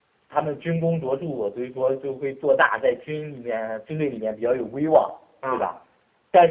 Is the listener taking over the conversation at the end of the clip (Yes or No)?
No